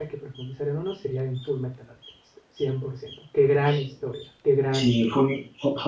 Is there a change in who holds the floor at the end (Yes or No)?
Yes